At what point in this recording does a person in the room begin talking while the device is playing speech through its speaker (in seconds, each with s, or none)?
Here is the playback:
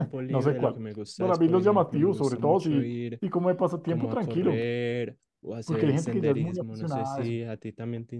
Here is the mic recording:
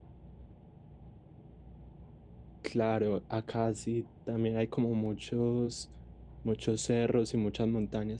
2.6 s